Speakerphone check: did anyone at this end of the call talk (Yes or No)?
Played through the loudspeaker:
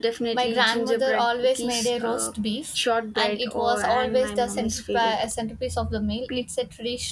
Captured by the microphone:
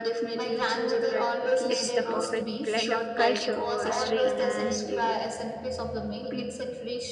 Yes